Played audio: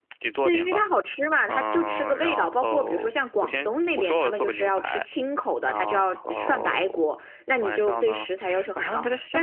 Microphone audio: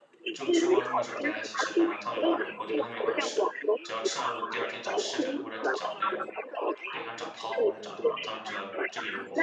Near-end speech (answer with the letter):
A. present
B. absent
A